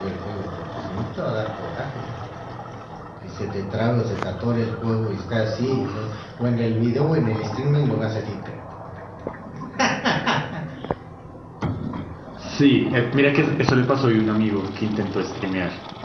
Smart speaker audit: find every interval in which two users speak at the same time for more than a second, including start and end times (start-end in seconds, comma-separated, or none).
none